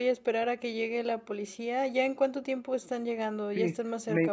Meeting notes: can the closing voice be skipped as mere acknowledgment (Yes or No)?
No